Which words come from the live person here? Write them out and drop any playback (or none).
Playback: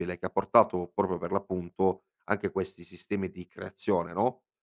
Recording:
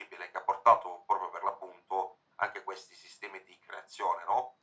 none